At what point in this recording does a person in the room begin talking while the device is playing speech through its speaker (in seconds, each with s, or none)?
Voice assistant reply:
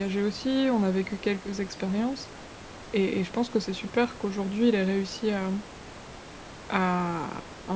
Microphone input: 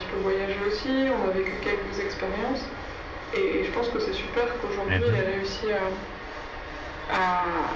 4.8 s